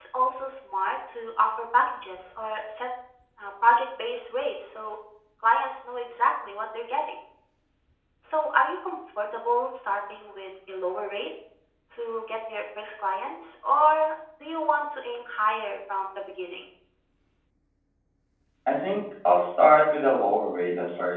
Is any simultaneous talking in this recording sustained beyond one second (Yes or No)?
No